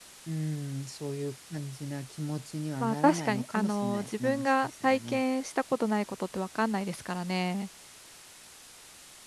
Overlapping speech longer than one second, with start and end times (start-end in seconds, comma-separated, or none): 2.8-5.2